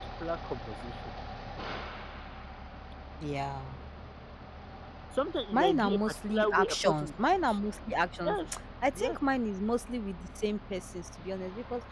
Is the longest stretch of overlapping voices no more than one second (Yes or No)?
No